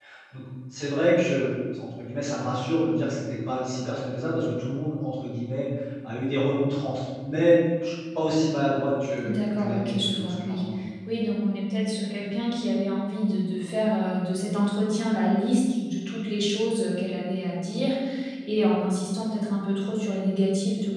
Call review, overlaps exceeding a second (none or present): present